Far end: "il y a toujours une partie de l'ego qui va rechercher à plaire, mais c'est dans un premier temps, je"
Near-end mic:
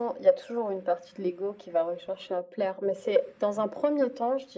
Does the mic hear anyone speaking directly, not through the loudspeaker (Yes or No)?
No